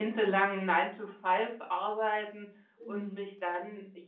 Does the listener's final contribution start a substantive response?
No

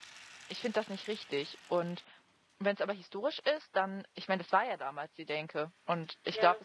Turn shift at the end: No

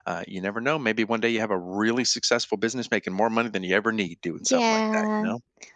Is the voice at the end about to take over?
Yes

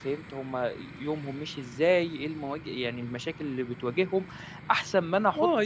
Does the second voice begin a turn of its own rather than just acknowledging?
Yes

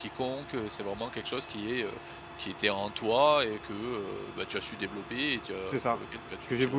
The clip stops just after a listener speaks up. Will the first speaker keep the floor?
No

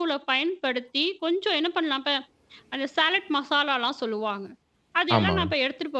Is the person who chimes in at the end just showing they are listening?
Yes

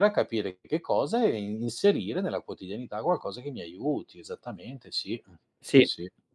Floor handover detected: Yes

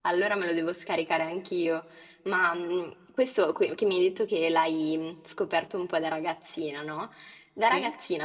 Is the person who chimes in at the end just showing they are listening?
Yes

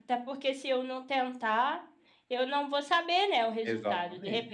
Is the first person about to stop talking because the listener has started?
No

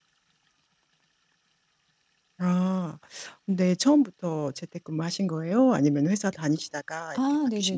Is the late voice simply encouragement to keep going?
No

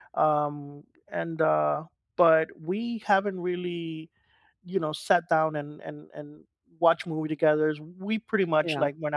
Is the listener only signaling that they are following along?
Yes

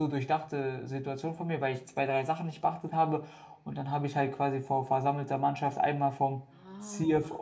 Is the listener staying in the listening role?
Yes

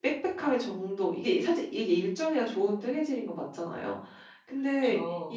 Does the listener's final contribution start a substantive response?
No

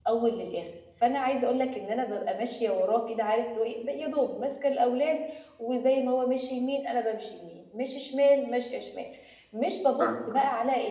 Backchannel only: Yes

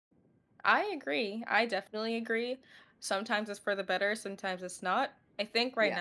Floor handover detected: No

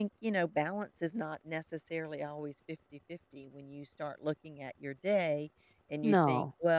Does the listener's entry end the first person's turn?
No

